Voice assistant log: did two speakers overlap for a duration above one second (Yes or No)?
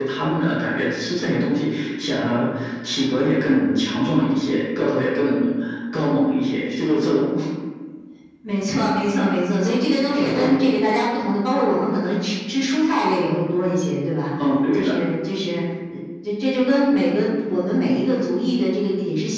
No